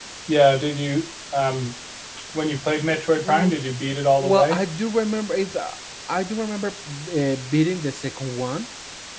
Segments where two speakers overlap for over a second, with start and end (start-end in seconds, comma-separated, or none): none